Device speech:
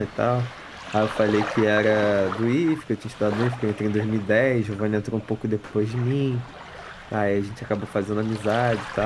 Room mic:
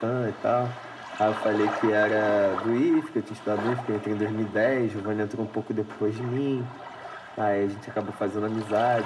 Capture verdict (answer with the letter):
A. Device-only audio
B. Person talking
A